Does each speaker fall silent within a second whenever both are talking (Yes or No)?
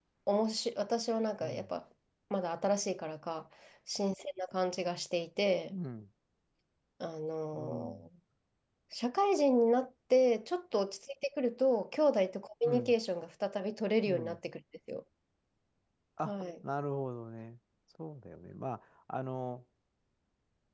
Yes